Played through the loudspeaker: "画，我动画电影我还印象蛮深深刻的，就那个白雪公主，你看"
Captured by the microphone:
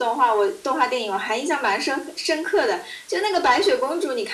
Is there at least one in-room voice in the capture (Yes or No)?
No